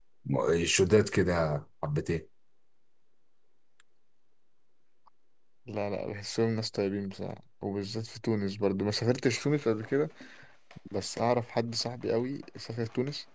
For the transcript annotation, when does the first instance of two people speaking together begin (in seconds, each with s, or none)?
none